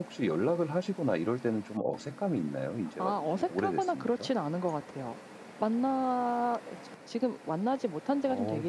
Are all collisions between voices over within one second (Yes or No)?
No